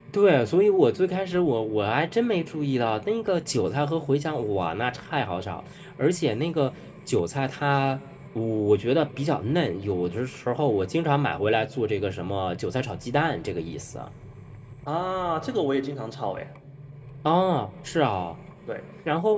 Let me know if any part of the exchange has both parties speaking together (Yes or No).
No